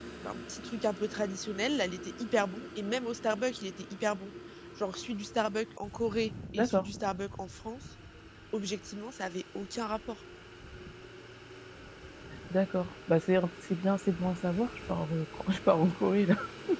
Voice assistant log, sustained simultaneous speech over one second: none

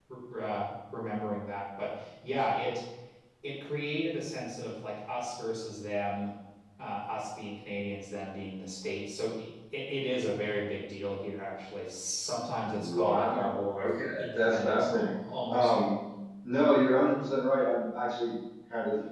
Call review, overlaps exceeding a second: present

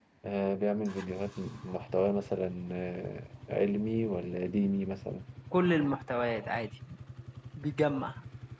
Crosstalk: none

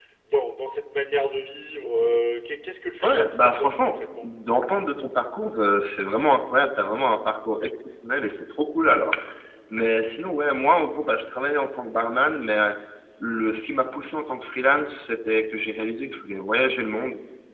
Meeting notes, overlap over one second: present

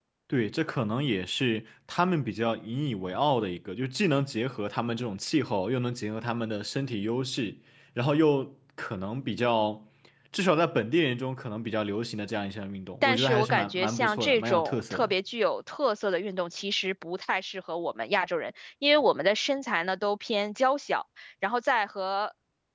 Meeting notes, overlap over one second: present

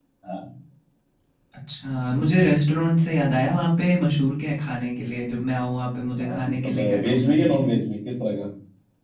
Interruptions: present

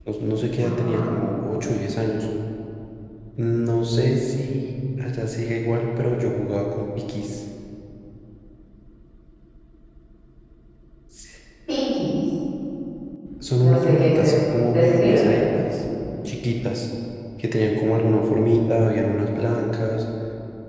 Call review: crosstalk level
present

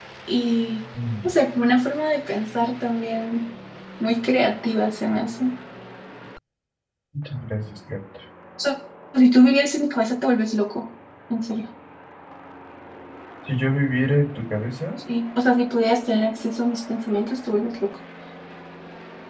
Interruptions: none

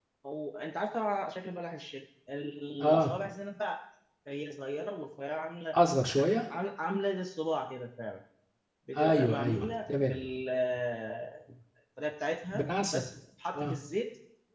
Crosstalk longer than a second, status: present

